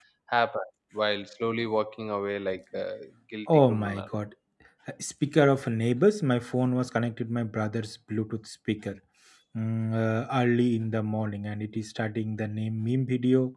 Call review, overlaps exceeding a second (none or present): none